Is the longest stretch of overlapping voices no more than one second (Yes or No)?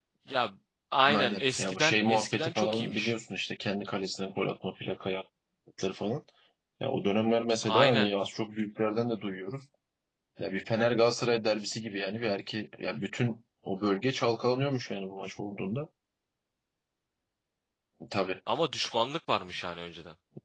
No